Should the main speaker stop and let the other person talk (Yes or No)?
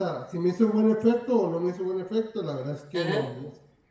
No